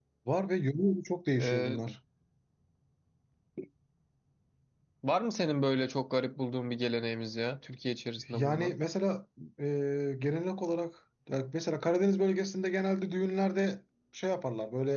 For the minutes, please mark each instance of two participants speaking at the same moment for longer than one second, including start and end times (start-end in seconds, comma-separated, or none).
none